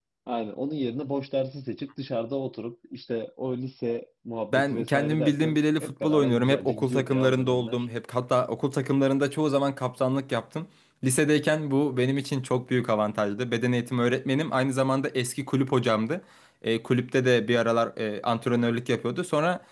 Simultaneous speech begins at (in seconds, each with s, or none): 4.5 s